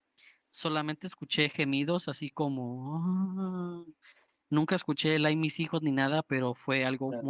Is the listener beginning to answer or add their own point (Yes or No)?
Yes